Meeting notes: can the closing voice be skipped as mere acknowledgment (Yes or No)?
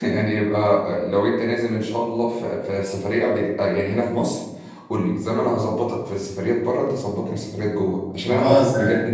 Yes